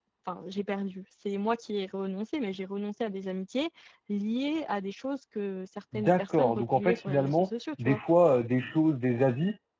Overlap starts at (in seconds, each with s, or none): 5.9 s